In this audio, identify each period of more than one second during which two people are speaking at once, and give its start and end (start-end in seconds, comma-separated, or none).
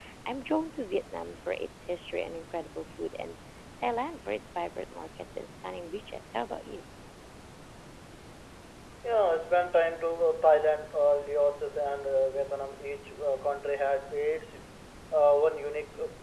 none